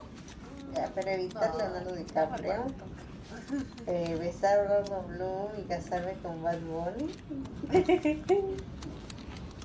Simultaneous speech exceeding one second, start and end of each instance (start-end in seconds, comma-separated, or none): 0.7-2.7